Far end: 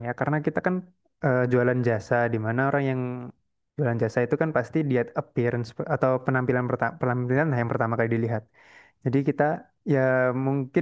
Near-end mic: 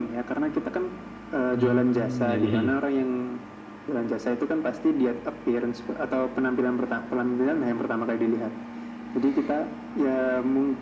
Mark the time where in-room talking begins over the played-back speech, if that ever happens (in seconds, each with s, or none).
1.5 s